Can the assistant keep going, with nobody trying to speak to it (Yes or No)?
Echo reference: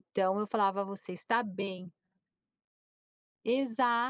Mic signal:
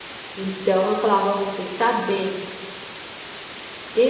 Yes